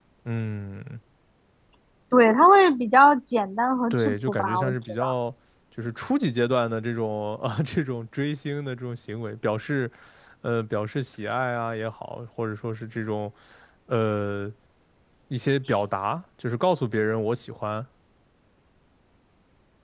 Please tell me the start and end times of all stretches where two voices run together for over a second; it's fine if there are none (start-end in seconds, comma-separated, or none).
3.9-5.1